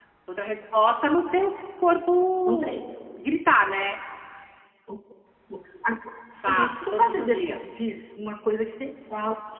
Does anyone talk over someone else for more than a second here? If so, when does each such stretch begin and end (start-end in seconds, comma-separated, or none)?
6.4-7.8